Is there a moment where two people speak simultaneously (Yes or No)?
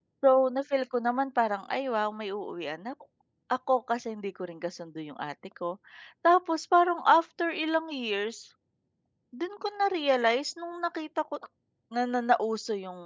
No